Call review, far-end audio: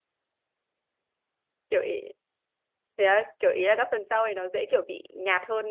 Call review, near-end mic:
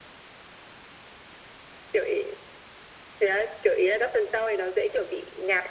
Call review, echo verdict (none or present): present